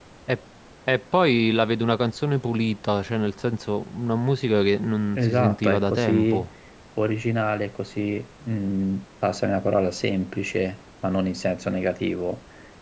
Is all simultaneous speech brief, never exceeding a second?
No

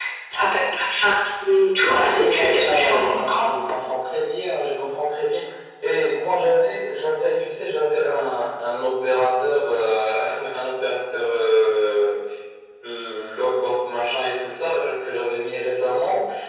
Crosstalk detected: Yes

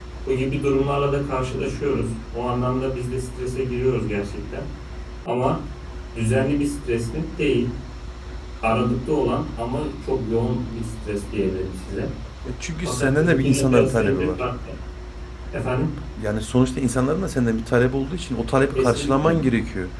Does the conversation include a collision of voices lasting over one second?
Yes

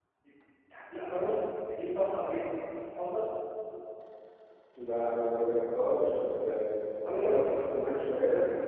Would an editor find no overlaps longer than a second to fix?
Yes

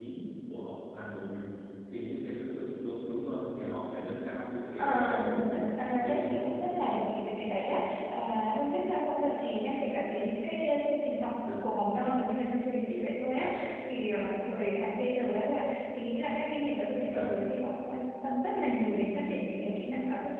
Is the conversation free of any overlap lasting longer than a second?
No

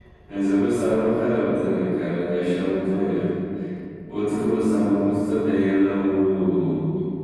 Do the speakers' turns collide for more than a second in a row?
No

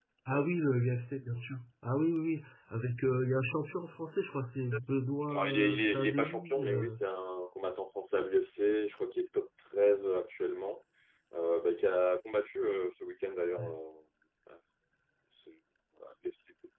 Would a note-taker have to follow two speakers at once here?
Yes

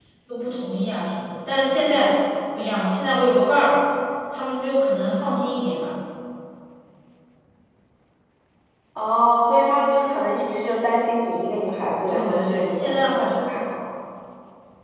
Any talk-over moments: Yes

